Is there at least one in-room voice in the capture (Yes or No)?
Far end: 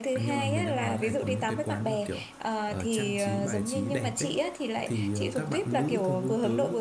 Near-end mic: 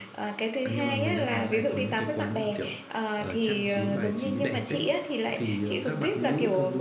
No